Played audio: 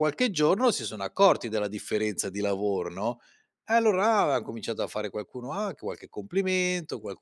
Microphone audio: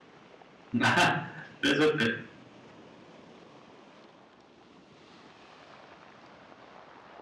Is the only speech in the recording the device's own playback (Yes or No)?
No